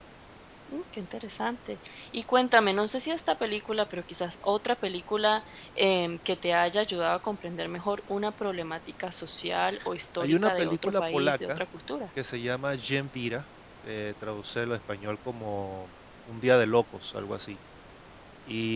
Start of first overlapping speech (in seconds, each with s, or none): 10.2 s